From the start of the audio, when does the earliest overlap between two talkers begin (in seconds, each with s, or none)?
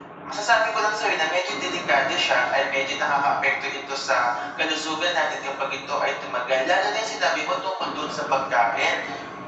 none